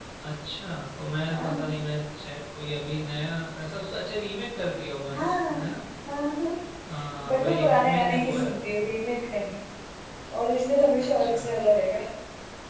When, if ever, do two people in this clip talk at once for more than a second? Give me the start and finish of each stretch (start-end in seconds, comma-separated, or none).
7.3-8.8